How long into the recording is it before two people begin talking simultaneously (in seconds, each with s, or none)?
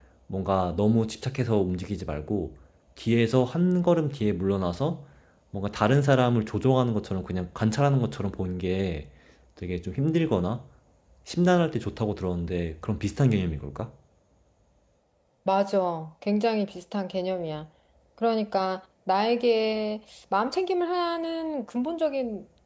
none